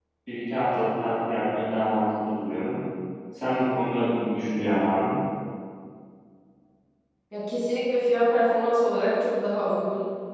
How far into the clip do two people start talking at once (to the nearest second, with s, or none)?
none